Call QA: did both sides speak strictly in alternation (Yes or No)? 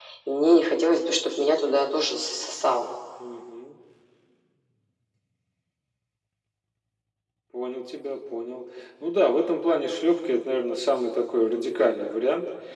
Yes